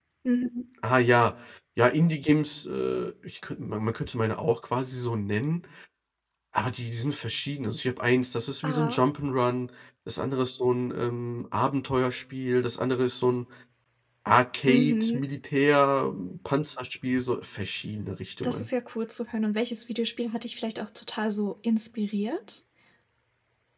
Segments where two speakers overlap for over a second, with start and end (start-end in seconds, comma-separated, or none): none